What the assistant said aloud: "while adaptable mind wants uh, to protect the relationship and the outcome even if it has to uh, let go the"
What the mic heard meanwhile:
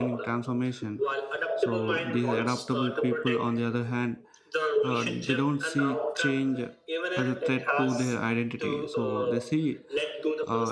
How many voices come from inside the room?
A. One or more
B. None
A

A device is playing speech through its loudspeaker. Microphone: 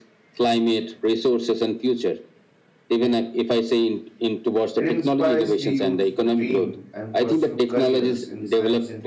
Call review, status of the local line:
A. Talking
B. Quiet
A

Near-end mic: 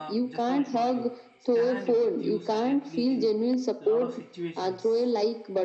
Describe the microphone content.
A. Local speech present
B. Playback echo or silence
A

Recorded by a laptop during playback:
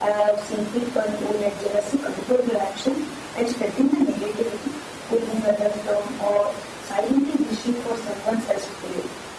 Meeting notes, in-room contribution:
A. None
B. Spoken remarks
A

